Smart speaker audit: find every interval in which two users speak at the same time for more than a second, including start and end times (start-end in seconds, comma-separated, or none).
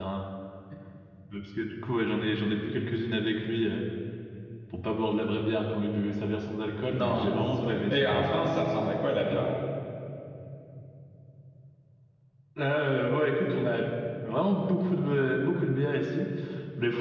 6.9-8.2